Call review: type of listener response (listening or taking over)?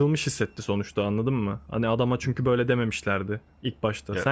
listening